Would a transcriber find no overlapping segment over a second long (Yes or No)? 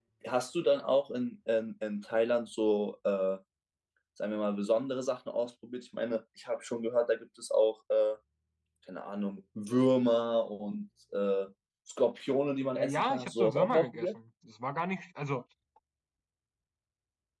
No